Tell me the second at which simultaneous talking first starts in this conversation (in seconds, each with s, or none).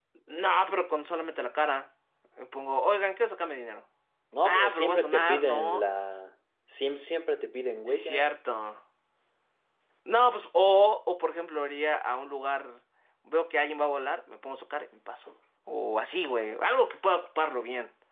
4.4 s